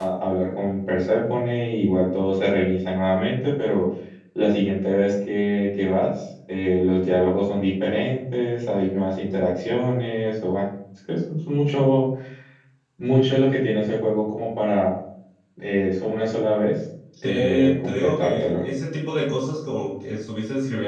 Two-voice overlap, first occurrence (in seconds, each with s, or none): 17.2 s